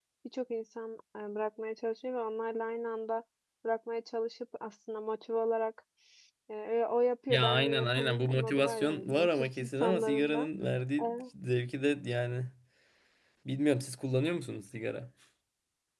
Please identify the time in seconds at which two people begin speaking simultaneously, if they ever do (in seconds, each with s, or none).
7.3 s